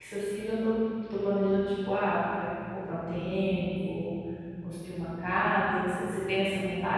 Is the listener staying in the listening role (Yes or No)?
No